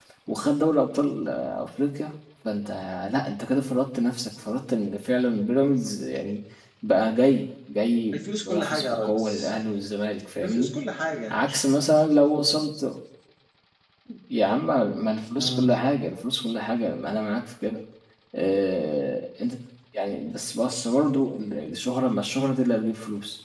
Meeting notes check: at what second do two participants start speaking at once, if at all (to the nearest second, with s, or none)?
8 s